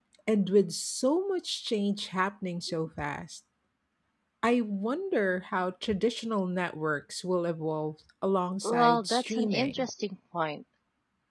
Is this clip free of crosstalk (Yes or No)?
No